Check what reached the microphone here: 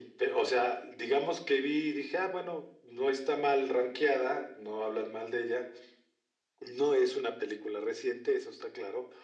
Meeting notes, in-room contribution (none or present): none